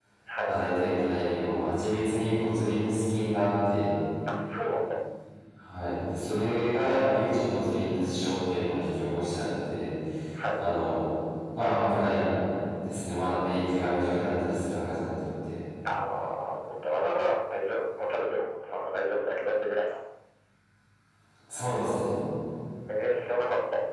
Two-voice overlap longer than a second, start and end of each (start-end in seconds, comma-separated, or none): none